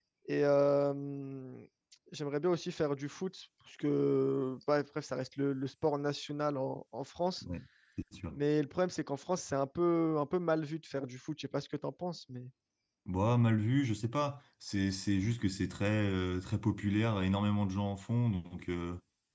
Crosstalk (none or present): none